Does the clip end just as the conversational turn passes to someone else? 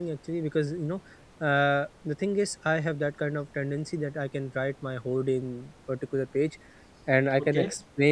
No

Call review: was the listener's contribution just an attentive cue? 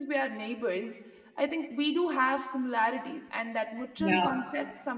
Yes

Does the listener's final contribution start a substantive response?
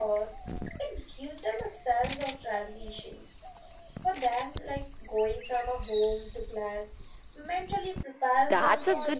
Yes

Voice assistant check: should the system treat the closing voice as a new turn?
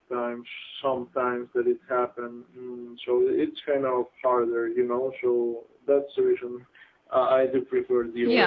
Yes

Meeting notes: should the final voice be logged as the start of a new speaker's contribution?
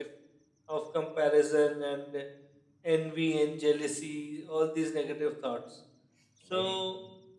Yes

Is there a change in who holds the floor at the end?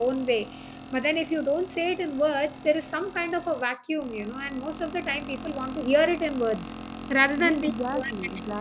Yes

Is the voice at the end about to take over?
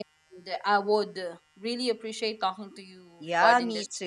Yes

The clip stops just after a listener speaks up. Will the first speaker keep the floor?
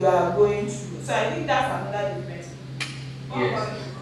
No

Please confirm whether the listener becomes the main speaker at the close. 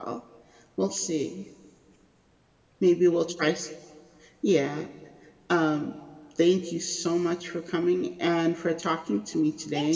Yes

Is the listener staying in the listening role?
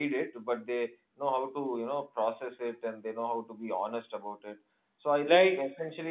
Yes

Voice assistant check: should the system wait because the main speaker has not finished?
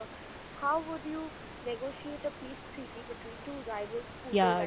No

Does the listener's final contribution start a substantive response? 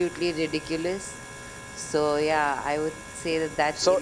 Yes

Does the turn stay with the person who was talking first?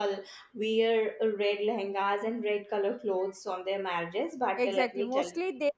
No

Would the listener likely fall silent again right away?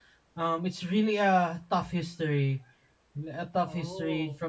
Yes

